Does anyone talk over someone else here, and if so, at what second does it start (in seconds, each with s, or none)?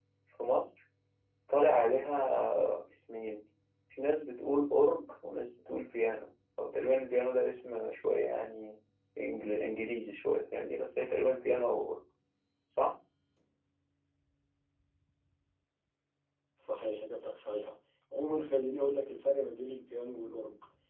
none